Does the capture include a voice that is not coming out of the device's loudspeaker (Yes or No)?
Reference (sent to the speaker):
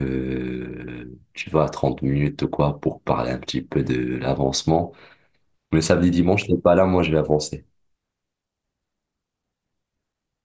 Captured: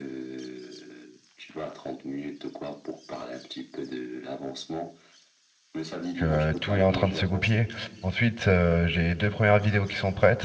Yes